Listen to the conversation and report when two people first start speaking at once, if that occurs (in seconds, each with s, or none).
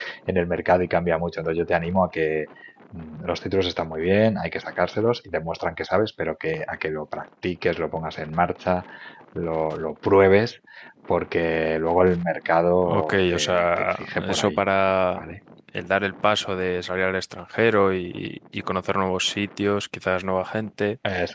12.8 s